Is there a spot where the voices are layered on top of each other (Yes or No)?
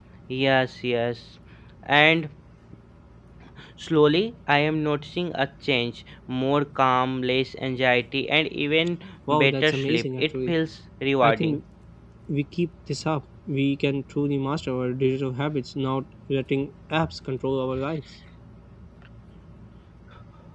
Yes